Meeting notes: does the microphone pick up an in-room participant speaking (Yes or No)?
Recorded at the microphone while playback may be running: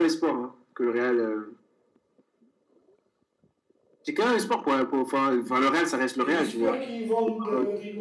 Yes